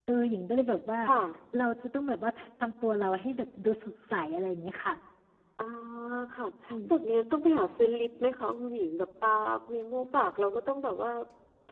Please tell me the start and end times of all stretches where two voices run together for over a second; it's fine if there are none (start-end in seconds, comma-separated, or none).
none